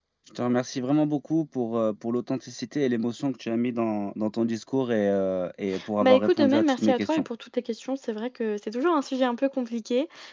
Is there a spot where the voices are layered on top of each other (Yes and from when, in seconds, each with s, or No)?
Yes, from 6.0 s